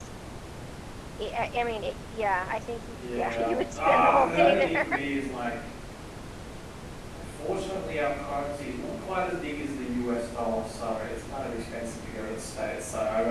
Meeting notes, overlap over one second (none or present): present